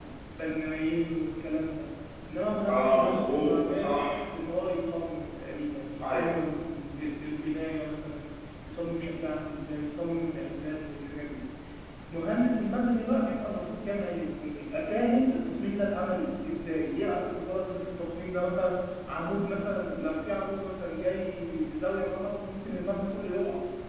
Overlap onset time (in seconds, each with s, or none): 2.7 s